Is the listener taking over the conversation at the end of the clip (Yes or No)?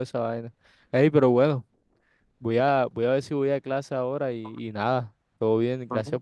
No